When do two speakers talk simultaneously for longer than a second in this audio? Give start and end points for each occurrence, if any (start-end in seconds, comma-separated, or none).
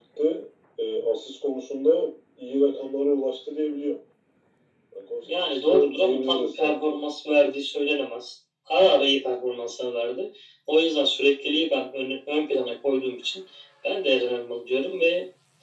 5.2-7.0